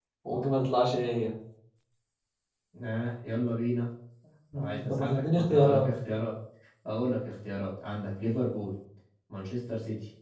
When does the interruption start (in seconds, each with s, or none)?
4.5 s